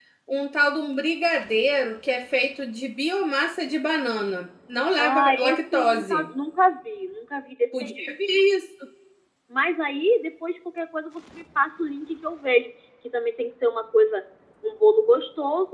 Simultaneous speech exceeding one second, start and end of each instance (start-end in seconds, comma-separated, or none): 5.0-6.3